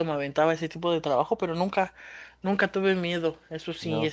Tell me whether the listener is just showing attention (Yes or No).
Yes